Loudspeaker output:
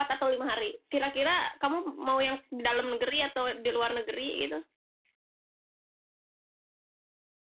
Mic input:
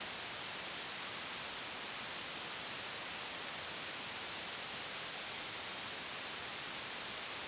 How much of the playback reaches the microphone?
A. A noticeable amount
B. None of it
B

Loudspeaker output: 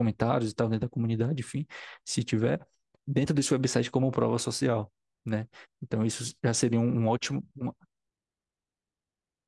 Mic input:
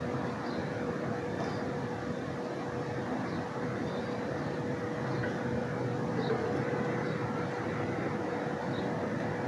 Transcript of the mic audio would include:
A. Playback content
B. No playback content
B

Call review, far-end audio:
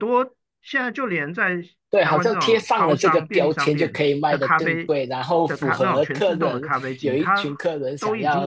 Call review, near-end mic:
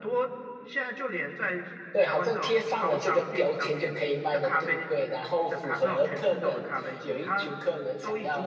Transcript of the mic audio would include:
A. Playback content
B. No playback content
A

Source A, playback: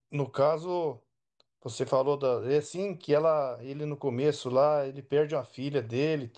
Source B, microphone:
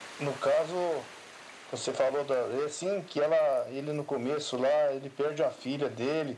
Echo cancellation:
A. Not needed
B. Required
B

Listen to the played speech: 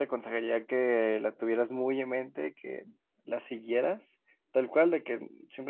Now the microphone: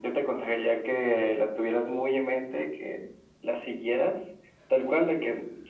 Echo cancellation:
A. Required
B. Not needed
A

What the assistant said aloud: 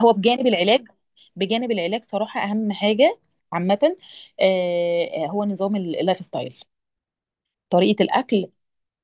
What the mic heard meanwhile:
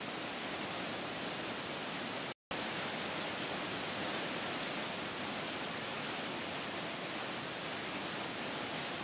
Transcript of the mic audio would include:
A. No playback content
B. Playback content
A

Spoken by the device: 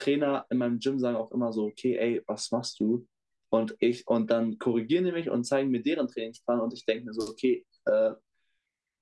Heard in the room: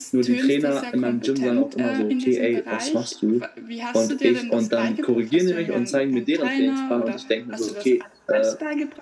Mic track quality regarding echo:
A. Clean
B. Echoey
B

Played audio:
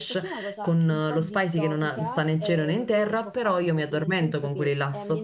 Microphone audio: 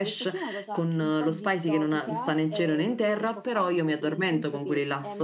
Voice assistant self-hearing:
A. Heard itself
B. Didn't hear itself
A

